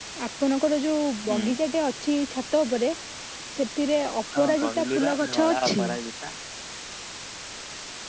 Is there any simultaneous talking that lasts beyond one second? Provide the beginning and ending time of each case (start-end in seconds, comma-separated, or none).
4.4-5.9